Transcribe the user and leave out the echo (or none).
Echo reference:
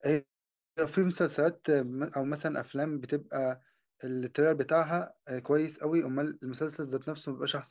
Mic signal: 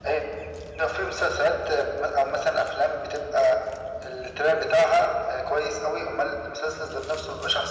none